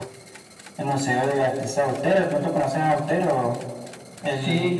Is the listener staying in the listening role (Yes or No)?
No